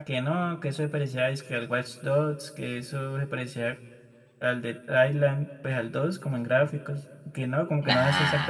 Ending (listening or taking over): listening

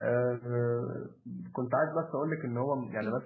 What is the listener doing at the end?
listening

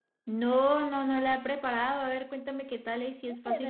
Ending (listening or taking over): taking over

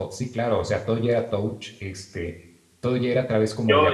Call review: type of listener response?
taking over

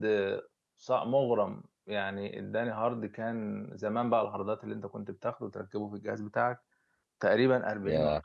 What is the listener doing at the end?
listening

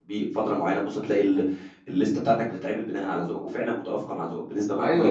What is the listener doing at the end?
taking over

